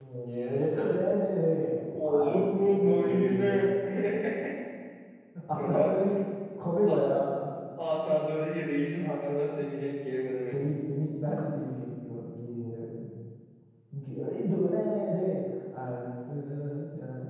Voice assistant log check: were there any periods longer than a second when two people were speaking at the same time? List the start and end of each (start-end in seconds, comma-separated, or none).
1.9-3.5